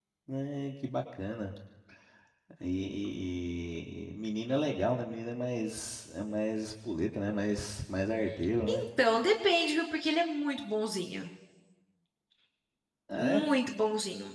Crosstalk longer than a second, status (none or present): none